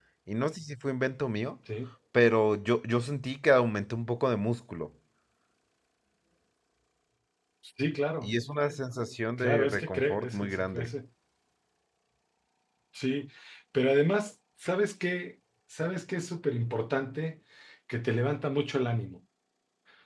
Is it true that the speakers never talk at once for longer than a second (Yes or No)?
No